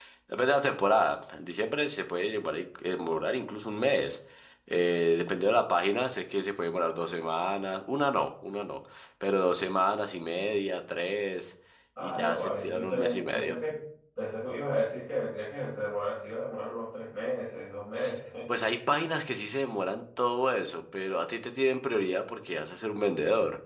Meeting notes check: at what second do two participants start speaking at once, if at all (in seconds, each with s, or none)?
12.0 s